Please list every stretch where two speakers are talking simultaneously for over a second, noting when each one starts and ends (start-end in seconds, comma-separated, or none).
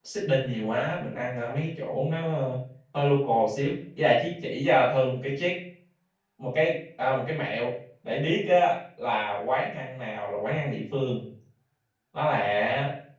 none